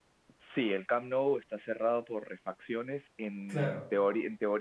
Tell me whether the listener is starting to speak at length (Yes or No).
No